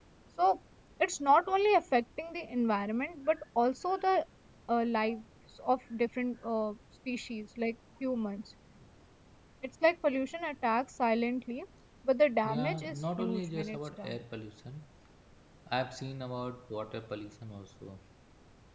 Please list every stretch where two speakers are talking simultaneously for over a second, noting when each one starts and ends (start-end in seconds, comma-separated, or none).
12.4-14.2